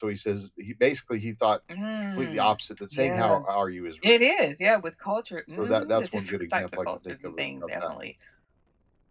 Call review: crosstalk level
present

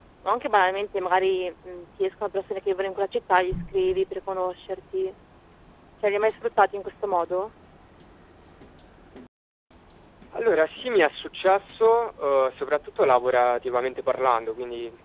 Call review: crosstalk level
none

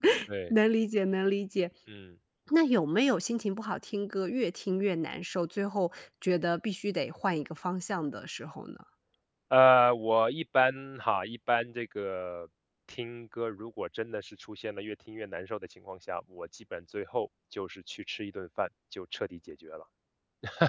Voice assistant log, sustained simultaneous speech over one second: none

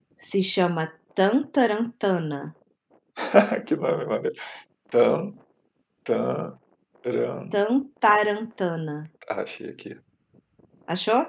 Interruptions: none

